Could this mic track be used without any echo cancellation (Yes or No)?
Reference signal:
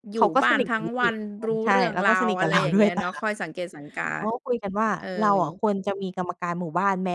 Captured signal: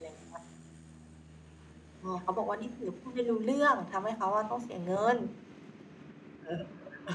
Yes